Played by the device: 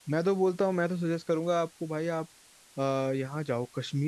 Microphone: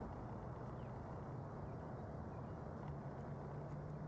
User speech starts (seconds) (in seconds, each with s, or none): none